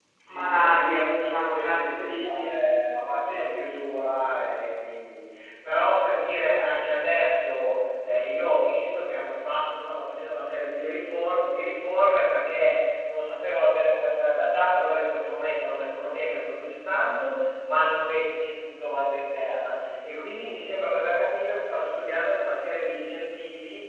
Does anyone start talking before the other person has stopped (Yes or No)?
Yes